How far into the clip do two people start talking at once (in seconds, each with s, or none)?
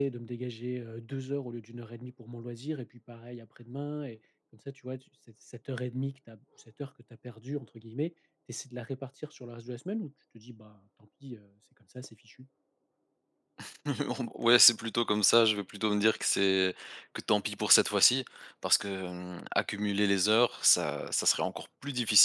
none